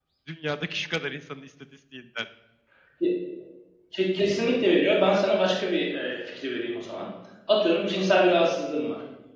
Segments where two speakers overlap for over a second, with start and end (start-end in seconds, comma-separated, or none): none